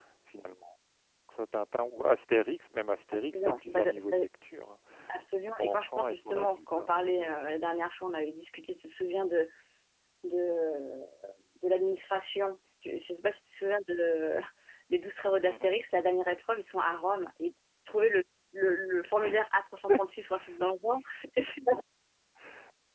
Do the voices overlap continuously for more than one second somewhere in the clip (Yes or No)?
Yes